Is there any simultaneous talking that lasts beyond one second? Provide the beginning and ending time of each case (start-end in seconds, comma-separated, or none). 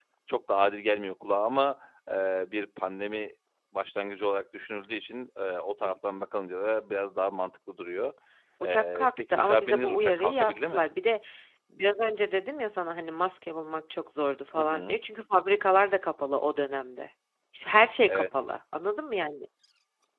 8.6-10.8